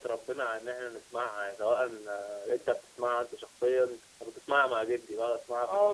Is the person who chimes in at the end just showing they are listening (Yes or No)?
No